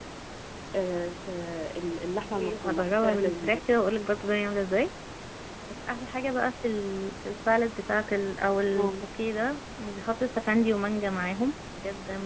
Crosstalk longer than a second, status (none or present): present